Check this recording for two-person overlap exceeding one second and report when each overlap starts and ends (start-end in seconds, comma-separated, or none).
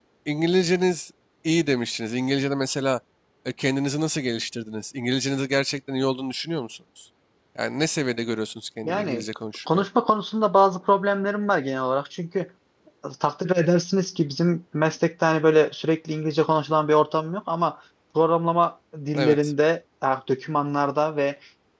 none